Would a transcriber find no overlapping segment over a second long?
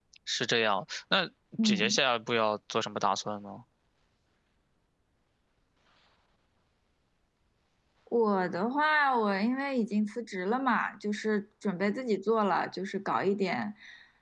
Yes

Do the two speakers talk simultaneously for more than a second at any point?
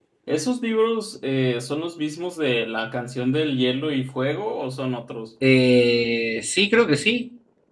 No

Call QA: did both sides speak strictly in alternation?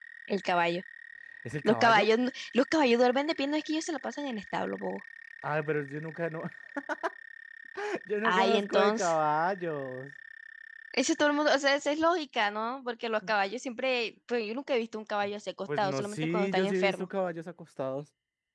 No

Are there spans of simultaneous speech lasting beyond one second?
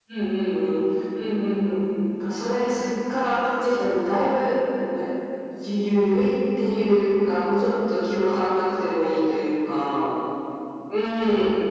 No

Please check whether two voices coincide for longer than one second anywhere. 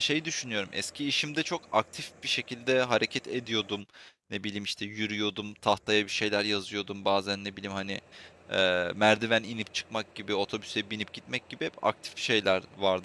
No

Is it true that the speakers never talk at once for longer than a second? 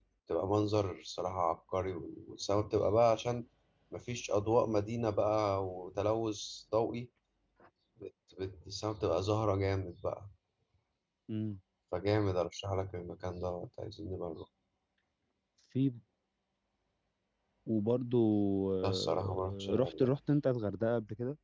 No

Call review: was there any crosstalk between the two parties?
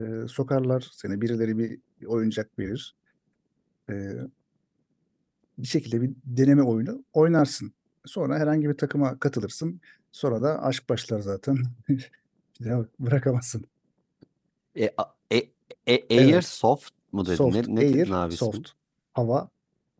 Yes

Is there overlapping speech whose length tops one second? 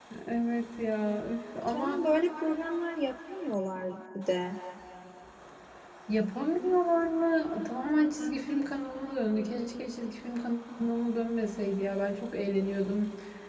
No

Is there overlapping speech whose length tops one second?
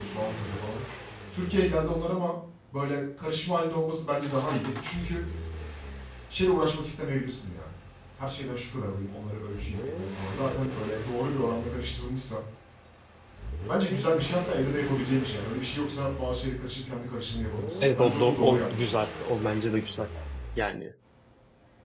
Yes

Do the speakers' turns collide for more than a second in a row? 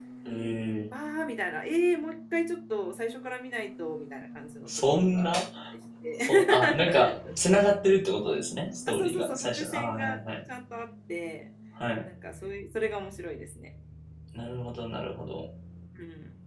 Yes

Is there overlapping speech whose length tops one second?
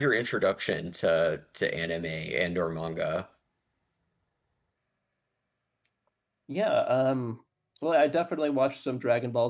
No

